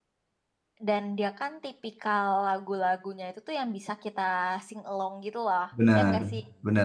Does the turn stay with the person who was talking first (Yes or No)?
No